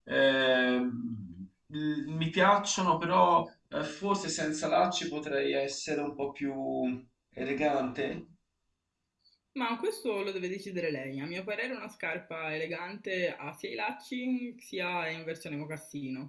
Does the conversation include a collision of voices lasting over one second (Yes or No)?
No